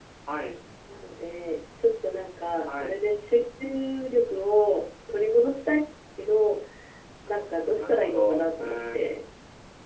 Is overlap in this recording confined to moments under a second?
No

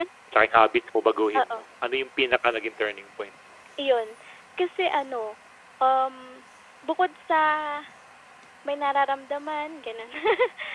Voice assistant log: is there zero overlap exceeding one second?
Yes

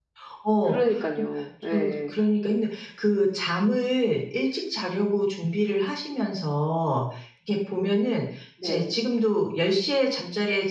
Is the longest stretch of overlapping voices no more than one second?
Yes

